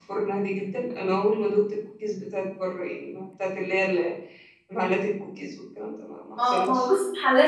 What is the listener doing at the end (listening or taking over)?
taking over